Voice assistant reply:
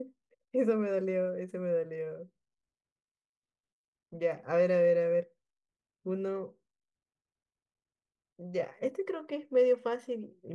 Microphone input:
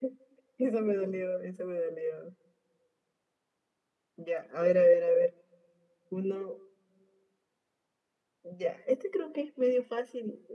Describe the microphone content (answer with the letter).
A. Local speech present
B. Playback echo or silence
B